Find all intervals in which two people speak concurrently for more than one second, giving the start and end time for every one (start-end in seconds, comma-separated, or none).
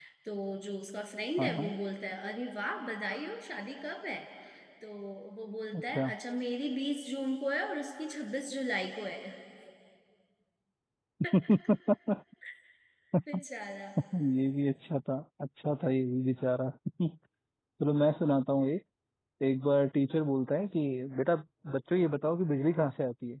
none